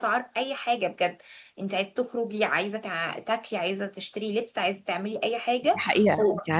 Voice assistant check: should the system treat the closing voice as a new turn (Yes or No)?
Yes